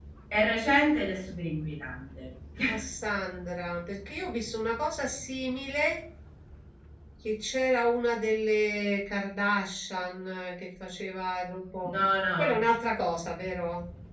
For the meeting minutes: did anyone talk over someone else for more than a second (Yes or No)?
No